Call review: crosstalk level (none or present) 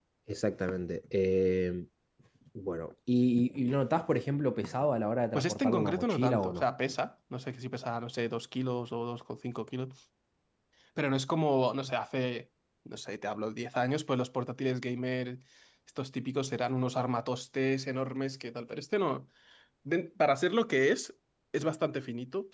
present